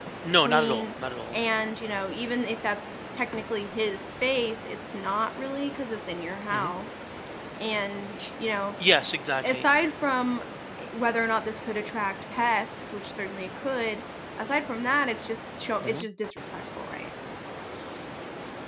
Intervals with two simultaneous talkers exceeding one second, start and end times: none

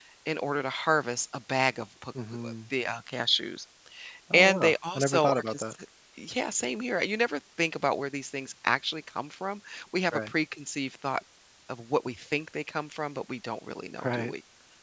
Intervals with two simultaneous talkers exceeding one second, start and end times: 4.3-5.6

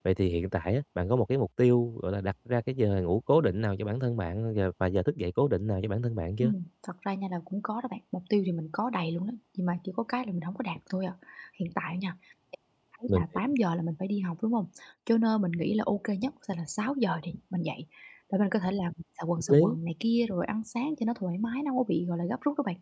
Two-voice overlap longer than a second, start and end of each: none

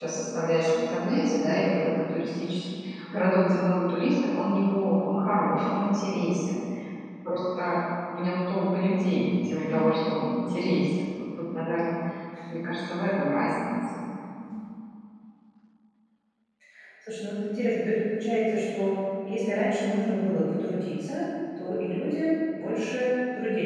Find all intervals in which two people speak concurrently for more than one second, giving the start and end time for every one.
none

